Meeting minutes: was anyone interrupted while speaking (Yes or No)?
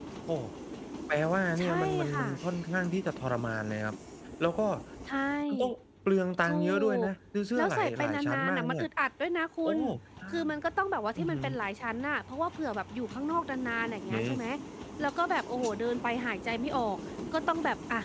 Yes